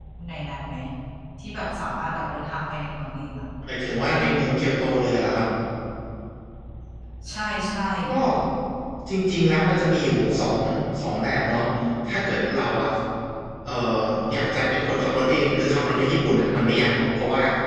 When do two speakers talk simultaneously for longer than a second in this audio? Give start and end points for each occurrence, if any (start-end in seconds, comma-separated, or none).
none